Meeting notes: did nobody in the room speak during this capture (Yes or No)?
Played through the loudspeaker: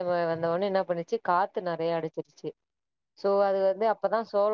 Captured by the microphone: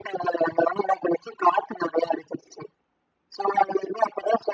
Yes